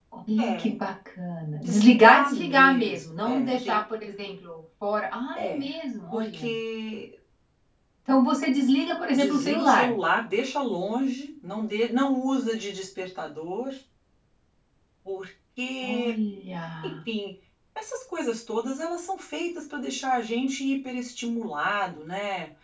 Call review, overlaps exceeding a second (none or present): present